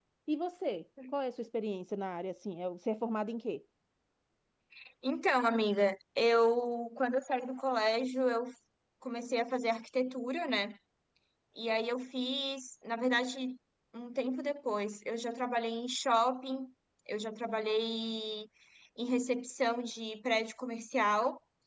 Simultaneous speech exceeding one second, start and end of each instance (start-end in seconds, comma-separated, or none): none